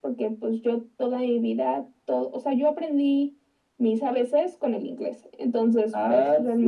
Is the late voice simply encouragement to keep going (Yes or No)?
No